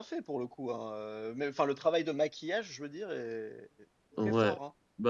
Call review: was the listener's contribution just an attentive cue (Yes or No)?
No